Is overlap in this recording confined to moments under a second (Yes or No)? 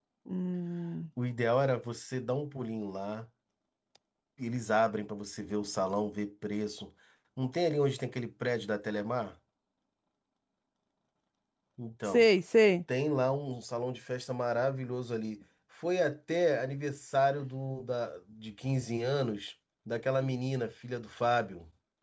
Yes